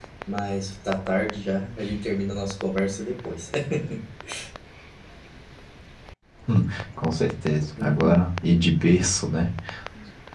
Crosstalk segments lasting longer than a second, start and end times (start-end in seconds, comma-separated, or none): none